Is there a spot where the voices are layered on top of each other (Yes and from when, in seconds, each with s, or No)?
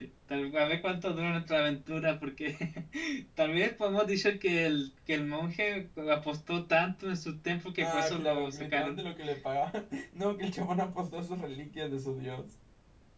Yes, from 7.8 s